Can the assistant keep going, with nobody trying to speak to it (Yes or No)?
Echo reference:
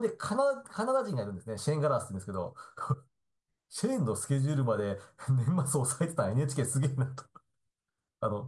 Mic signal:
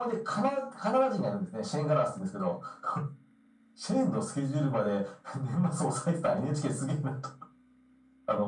Yes